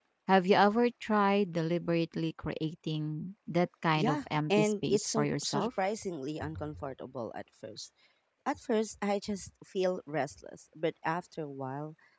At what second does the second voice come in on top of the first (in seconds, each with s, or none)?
4.0 s